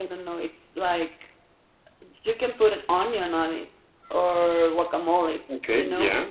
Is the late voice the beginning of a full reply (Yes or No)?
No